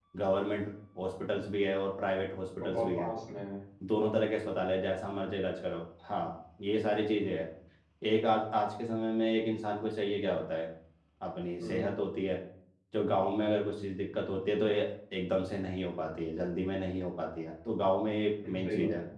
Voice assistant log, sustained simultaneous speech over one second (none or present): none